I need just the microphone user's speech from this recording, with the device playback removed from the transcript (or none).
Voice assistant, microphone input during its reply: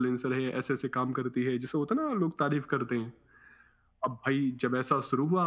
none